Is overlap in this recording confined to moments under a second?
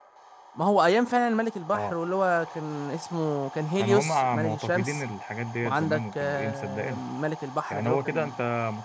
No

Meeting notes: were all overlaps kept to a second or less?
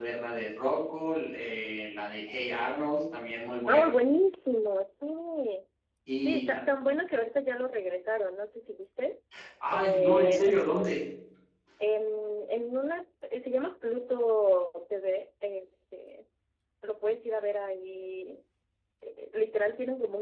No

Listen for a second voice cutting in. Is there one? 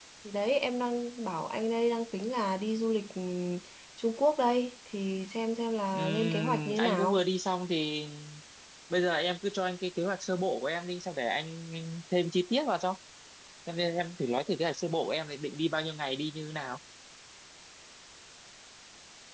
Yes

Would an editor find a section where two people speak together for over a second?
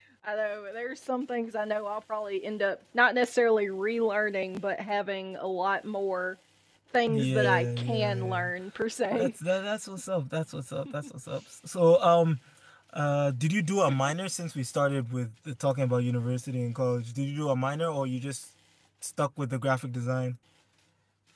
Yes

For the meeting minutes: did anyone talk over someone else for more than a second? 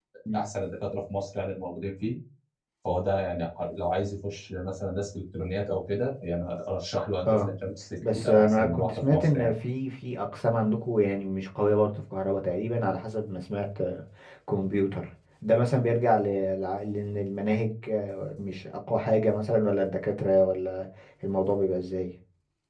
Yes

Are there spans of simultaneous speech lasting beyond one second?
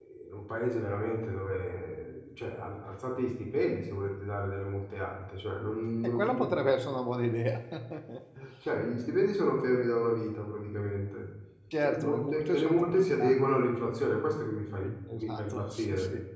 Yes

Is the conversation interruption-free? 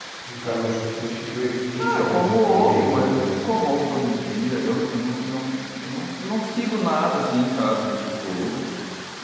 No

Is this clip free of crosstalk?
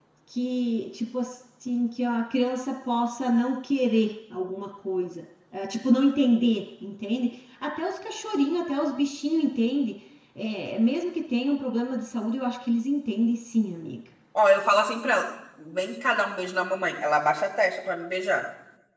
Yes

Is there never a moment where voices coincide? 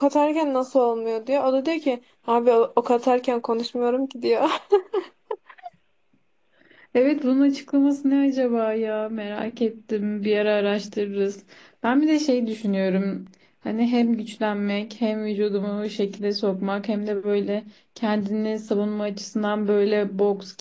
Yes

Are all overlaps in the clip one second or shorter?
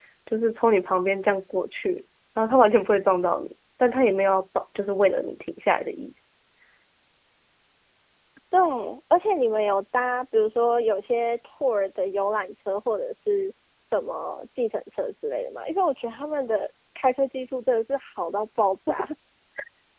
Yes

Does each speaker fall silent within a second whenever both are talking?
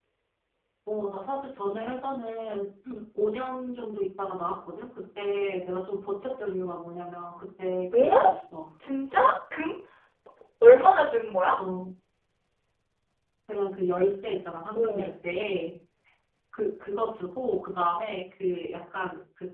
Yes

